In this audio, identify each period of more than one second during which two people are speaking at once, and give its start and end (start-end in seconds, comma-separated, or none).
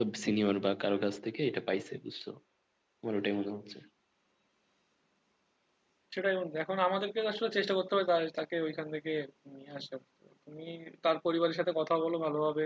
none